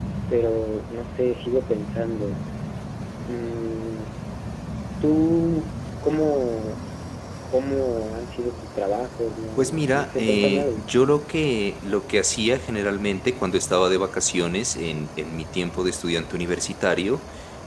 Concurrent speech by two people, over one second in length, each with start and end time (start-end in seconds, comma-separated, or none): 9.6-10.8